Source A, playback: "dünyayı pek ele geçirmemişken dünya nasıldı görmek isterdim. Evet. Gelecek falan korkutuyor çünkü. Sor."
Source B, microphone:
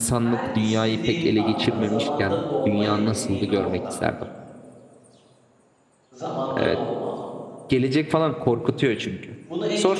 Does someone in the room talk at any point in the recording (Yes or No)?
Yes